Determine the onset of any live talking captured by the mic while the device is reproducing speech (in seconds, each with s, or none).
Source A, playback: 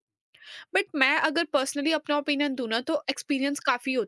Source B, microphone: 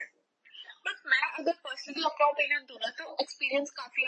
none